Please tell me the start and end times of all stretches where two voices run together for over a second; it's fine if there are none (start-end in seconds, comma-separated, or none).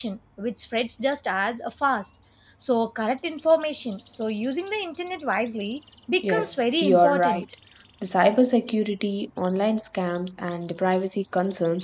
6.2-7.4